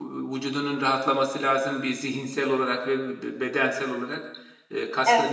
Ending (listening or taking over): listening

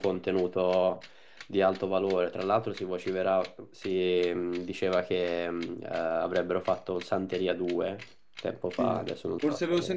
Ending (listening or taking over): taking over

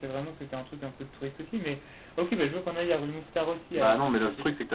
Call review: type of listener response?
taking over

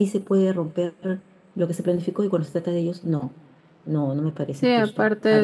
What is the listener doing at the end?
taking over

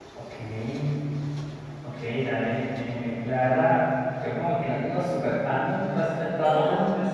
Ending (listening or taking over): listening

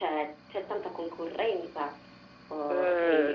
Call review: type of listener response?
taking over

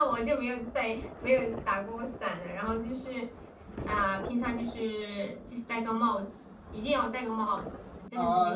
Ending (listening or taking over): taking over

